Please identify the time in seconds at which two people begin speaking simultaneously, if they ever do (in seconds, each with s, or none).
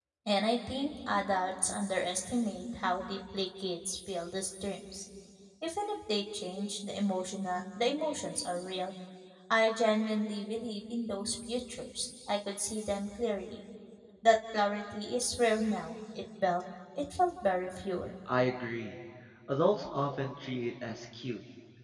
none